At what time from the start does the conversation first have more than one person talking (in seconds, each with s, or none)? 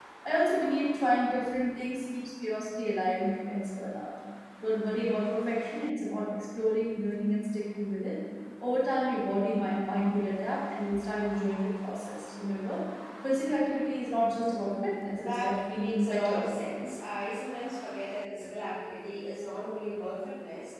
15.2 s